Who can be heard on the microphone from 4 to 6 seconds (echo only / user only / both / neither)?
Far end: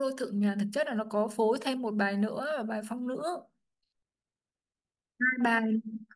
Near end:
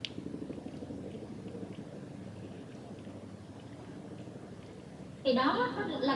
user only